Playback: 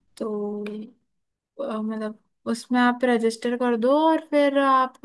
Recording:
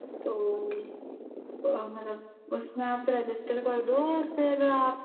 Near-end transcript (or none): none